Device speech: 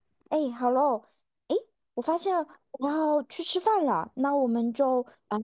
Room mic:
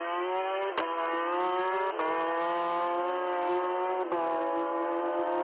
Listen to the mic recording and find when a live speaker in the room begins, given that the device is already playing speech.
none

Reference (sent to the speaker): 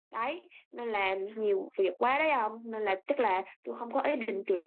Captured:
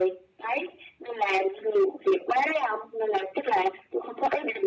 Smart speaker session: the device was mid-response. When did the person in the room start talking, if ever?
none

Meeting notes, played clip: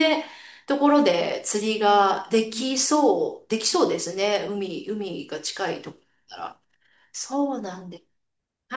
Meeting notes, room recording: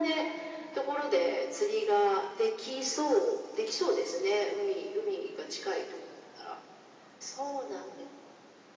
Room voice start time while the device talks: none

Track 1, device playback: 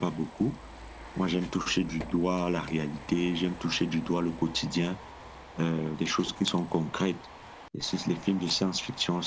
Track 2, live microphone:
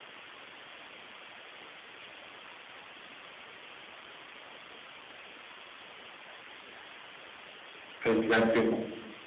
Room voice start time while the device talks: 8.1 s

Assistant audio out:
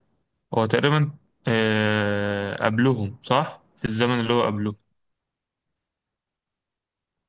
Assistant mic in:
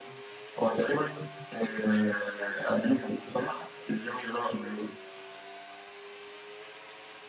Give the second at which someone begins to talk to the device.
none

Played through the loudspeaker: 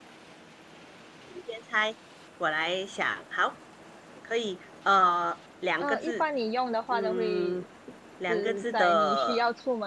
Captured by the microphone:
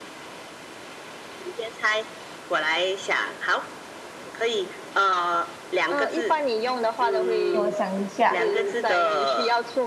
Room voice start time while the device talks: 7.5 s

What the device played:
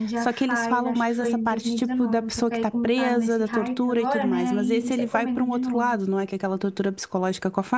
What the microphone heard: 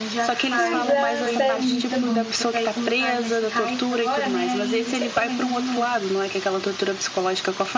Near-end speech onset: 0.6 s

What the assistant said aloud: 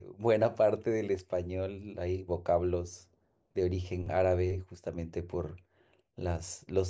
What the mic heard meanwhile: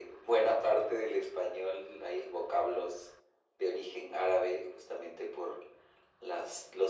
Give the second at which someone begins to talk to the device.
none

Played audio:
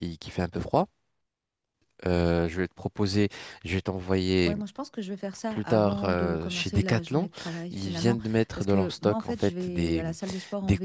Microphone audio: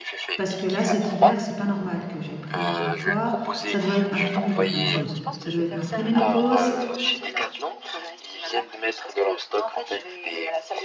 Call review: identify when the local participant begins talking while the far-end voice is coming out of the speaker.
0.3 s

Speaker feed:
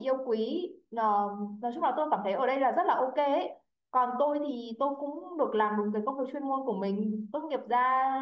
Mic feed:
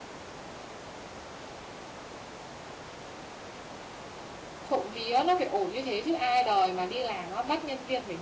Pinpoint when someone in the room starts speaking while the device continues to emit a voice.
4.6 s

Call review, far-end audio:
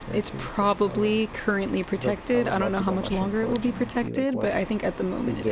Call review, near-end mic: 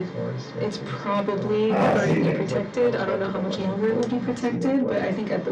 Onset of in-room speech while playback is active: 1.7 s

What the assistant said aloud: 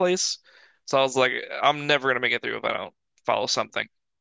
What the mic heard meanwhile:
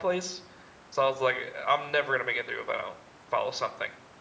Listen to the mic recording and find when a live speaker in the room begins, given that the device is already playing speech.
none

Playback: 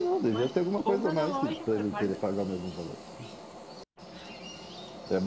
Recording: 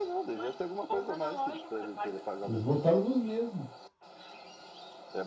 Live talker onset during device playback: 2.4 s

